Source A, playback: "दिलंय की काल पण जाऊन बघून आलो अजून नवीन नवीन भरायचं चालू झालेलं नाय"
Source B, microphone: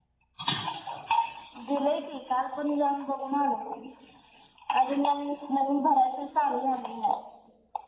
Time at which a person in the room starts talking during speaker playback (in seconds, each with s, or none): none